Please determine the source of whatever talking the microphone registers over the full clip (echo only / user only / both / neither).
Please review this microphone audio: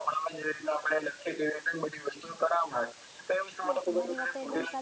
both